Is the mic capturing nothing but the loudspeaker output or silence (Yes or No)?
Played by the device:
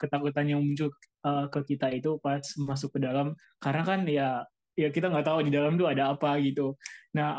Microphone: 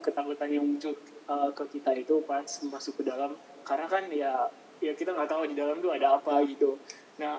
Yes